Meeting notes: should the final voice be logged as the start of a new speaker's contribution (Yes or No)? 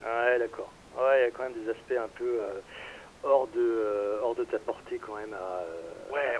Yes